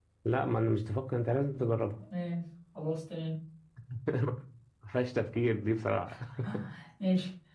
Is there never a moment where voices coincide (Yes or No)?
Yes